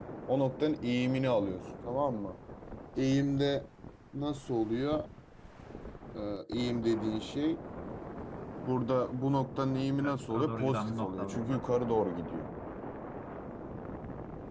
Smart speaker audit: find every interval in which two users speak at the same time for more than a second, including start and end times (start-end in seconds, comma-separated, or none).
10.0-11.6